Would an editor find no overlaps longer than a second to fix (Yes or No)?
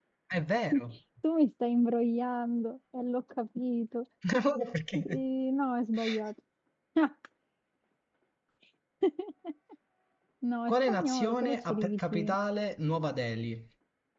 No